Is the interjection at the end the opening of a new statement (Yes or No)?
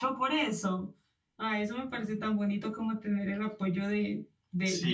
Yes